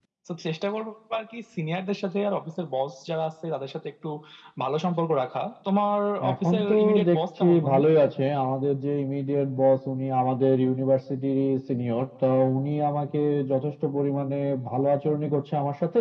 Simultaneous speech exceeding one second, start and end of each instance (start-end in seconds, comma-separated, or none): 6.3-7.8